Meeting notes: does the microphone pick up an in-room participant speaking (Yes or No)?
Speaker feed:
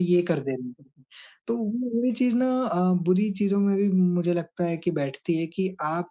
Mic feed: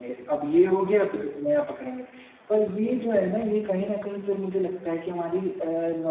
Yes